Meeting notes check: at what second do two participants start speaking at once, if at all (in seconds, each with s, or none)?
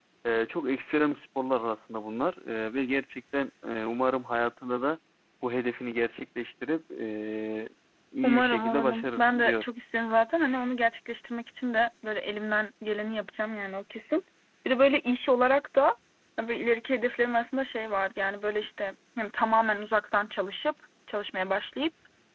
8.2 s